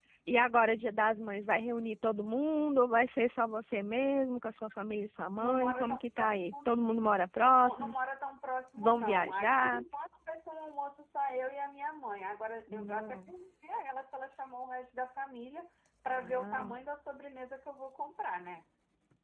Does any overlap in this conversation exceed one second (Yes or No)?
Yes